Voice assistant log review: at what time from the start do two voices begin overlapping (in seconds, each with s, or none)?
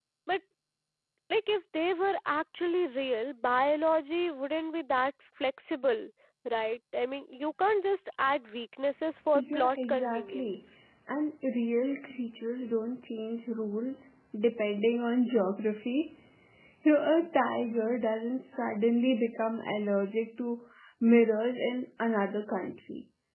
9.3 s